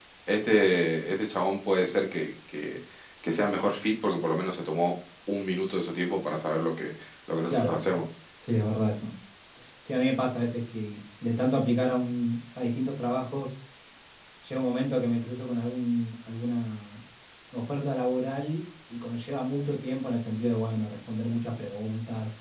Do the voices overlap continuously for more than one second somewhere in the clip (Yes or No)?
No